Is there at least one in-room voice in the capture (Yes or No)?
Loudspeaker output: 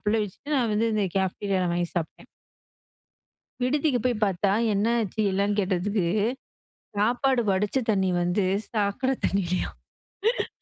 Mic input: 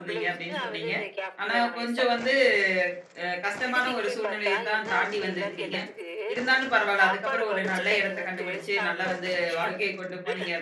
Yes